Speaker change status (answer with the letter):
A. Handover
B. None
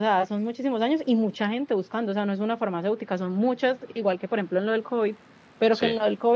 B